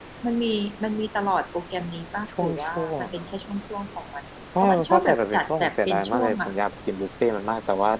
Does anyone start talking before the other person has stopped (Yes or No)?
Yes